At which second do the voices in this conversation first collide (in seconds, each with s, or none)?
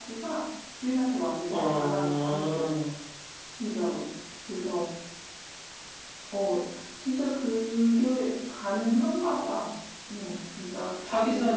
1.5 s